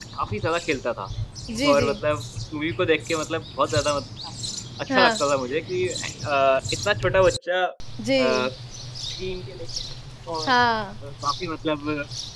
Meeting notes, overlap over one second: none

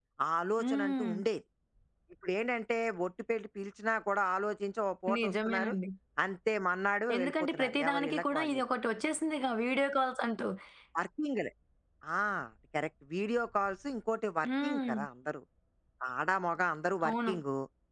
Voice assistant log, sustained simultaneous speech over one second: present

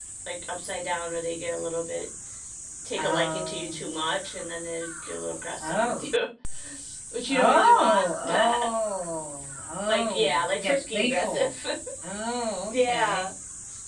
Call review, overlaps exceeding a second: present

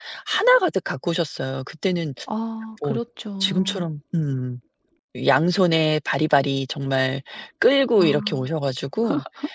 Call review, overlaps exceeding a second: none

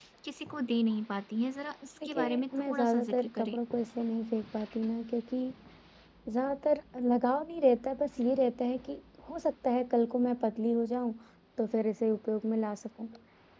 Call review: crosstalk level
present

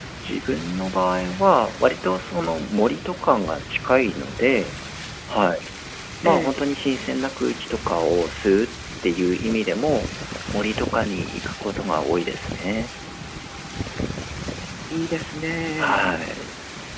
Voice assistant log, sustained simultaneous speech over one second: none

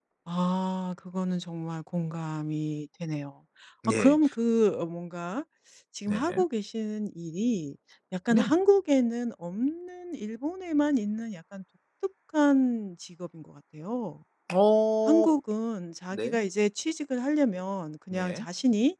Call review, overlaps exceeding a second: none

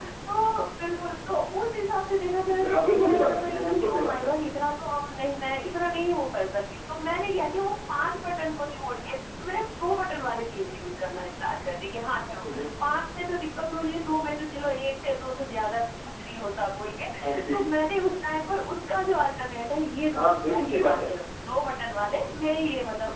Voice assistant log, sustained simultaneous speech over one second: present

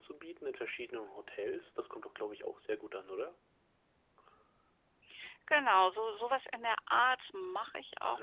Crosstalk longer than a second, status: none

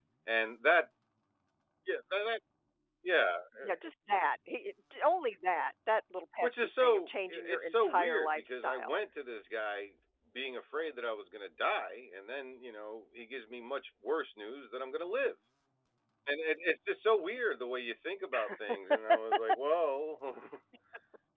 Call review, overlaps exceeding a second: present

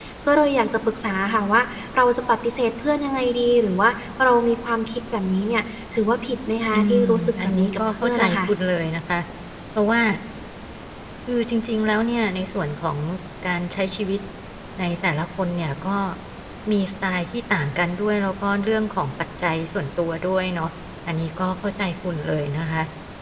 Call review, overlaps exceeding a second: present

